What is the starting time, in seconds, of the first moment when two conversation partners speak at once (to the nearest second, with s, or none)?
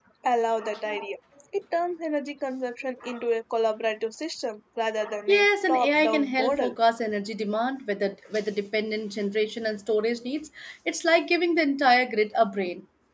5 s